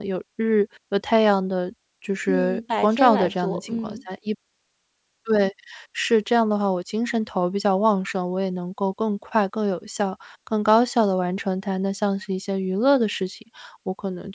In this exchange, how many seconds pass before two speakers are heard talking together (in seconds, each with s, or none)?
2.3 s